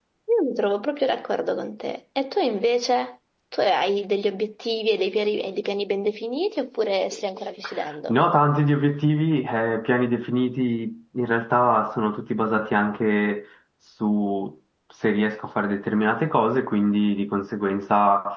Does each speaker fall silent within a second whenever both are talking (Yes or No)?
Yes